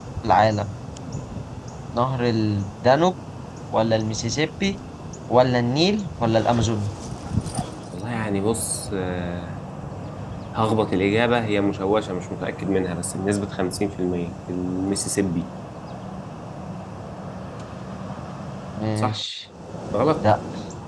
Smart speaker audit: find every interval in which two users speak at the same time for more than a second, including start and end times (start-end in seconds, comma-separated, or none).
none